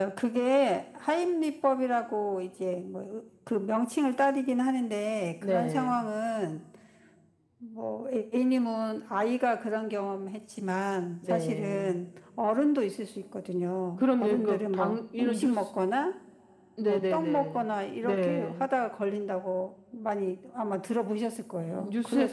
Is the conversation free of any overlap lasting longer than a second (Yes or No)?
No